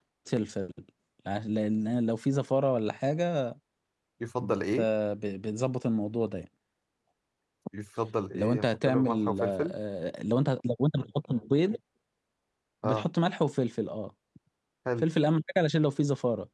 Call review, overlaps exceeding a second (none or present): present